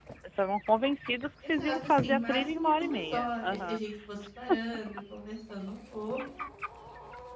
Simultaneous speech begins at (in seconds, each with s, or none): 1.4 s